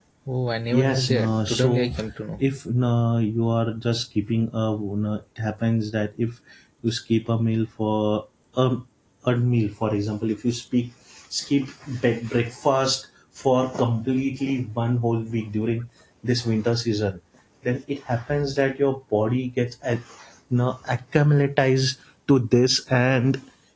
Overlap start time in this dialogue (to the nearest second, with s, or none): 1 s